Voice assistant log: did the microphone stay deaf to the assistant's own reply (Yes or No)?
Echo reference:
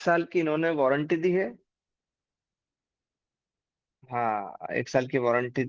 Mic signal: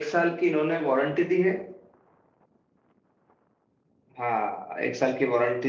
No